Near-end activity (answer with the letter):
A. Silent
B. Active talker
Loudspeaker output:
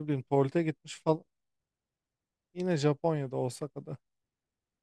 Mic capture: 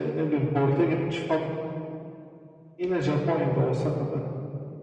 A